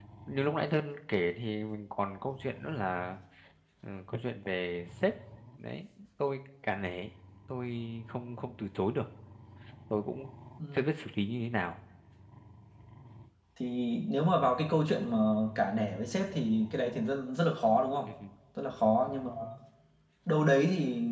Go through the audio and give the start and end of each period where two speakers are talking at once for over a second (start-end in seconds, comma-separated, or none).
none